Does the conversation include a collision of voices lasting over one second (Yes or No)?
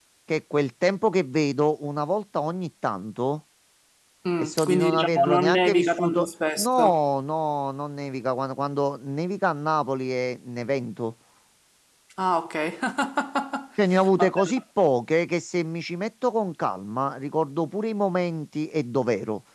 Yes